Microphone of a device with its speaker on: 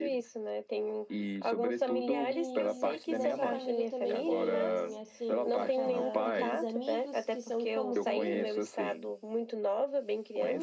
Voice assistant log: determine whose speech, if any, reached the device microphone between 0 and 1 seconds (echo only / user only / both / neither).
echo only